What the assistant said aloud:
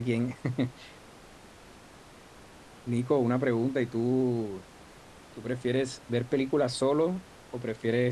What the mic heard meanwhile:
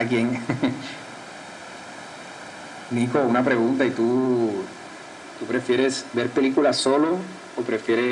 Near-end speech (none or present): none